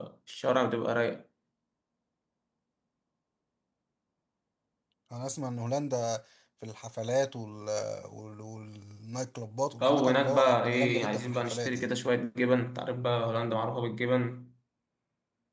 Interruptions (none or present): present